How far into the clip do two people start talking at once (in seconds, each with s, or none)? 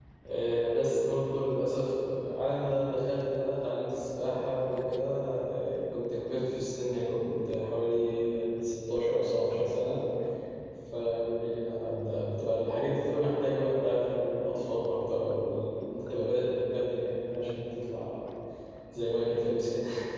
none